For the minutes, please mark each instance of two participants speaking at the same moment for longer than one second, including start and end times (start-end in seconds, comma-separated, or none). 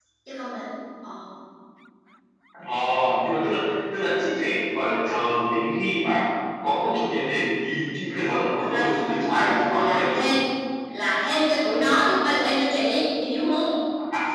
8.1-10.3